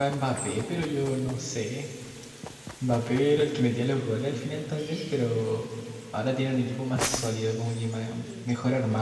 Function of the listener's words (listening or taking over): listening